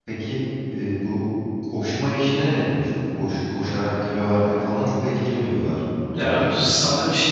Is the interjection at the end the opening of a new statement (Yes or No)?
Yes